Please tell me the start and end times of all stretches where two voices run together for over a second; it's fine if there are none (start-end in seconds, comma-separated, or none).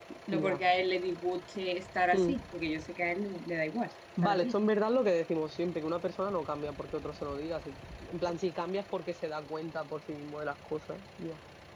none